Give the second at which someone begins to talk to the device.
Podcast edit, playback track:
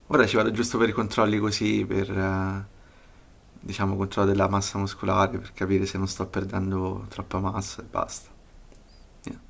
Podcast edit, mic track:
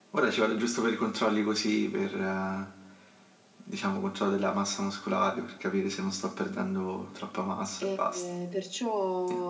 7.8 s

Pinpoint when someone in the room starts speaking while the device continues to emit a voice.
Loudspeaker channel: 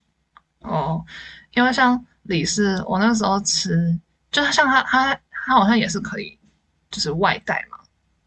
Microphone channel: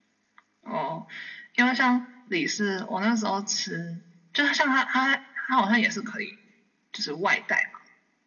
none

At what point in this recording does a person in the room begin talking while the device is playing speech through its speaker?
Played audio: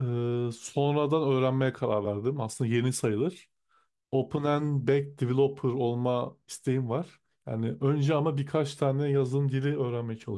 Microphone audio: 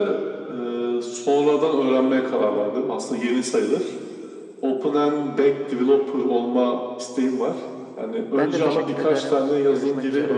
8.4 s

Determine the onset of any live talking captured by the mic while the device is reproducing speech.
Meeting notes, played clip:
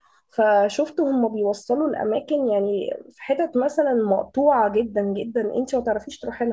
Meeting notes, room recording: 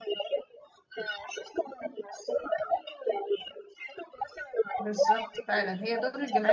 4.8 s

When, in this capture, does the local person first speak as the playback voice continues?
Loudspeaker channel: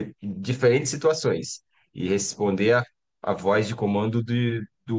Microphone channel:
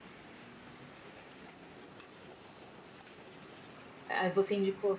4.0 s

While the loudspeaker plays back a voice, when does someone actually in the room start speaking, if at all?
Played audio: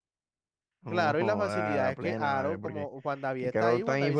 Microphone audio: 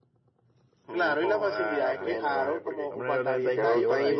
1.2 s

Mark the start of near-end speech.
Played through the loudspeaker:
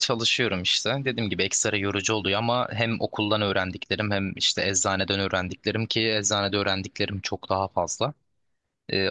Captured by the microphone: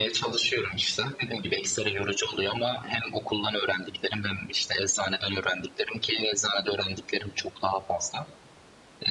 none

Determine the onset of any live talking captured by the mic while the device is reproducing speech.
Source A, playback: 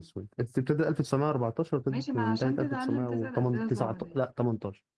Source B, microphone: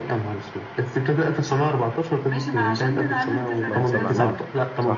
3.7 s

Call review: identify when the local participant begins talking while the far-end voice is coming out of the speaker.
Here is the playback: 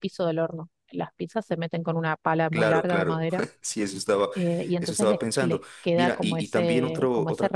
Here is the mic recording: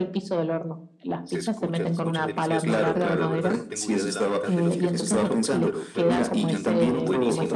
1.2 s

